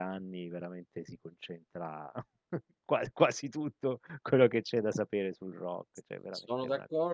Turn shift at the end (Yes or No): Yes